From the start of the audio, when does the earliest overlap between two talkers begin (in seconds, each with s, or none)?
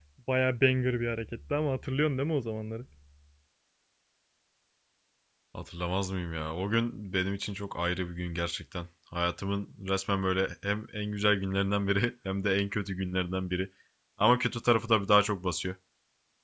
none